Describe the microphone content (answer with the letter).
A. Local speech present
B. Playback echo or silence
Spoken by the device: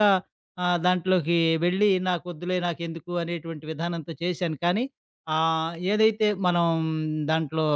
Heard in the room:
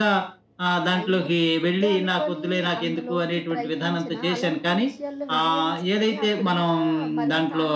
A